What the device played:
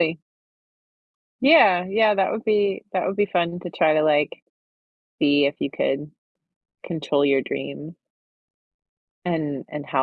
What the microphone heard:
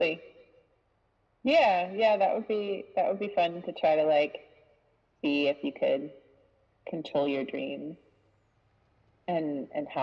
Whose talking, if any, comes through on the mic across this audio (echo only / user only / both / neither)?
echo only